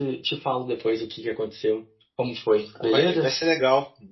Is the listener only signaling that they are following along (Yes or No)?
No